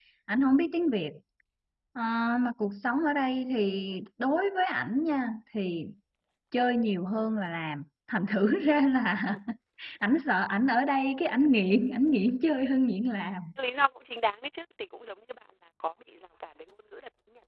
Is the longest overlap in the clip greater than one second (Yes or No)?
No